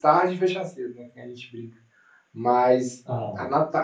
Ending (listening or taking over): listening